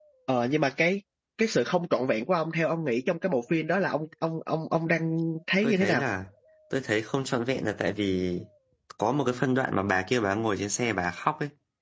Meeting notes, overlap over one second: none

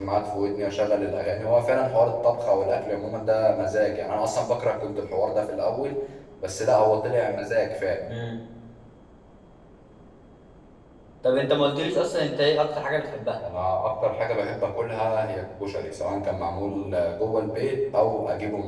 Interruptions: none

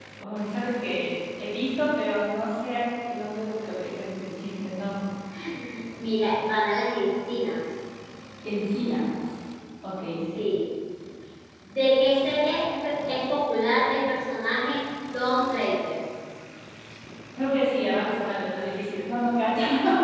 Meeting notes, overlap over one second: none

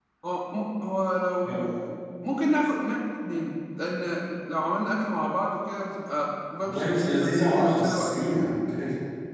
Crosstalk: present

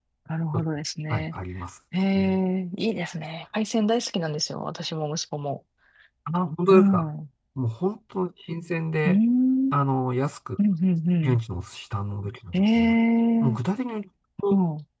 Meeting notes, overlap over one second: none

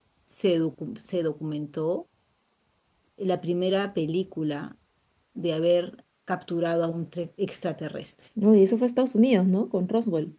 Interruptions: none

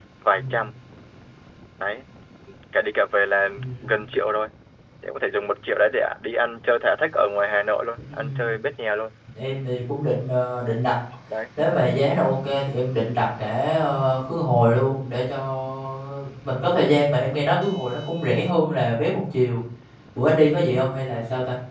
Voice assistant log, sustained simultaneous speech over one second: none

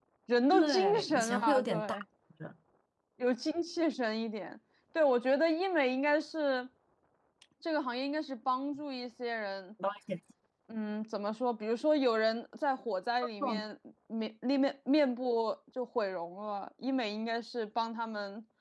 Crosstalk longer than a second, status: present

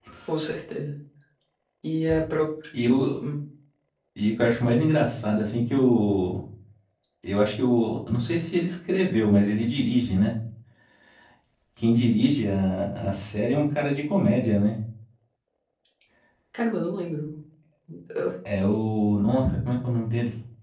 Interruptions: none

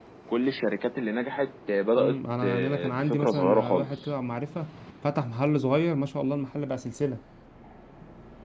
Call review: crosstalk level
present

